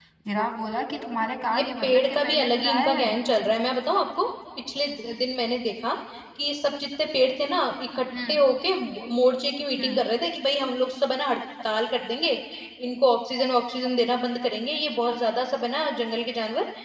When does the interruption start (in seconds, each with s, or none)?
1.5 s